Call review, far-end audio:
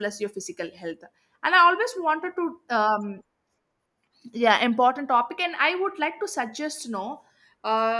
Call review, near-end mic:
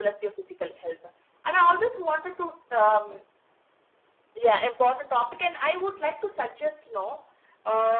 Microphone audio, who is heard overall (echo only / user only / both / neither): echo only